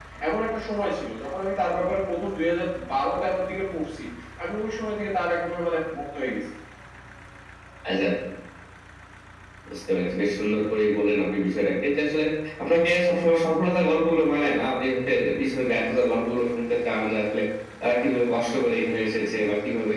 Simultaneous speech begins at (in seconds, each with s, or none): none